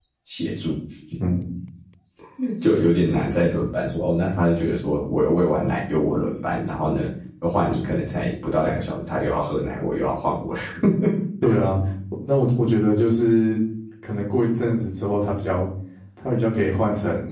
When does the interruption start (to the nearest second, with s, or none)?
none